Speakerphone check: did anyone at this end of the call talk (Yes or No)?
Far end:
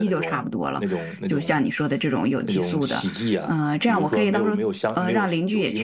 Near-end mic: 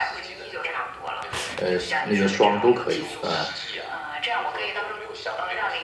Yes